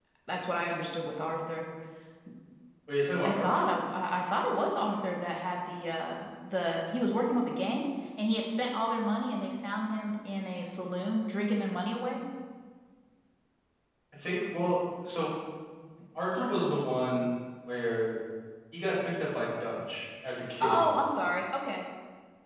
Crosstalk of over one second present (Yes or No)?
No